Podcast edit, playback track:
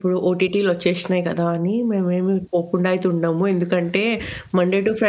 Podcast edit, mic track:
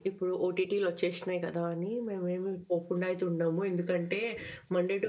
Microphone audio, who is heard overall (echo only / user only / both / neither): echo only